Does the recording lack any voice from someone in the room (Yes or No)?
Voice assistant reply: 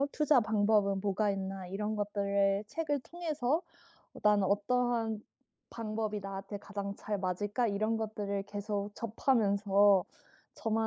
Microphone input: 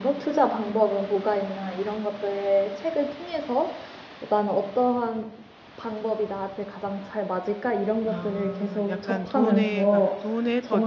No